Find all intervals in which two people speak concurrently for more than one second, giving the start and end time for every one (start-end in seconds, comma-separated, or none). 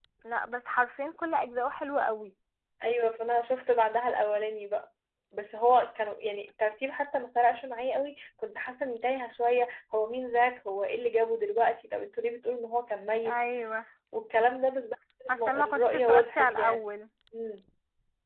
15.3-16.8